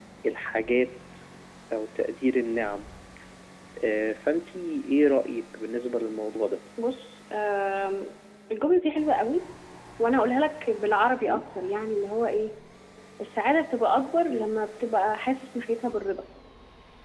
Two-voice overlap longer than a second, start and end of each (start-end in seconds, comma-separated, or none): none